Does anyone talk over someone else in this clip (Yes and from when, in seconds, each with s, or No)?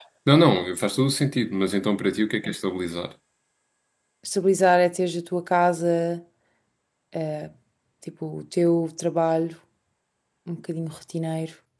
No